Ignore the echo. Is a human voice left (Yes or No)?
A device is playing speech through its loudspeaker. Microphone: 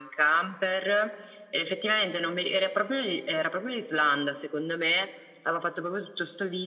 No